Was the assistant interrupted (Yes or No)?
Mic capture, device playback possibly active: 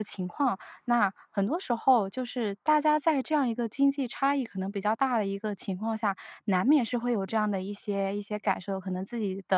Yes